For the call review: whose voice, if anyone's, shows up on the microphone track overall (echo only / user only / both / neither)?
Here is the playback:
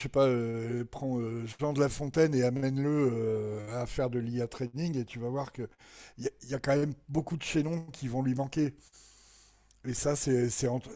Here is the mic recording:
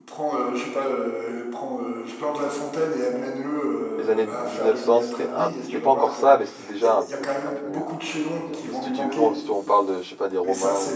both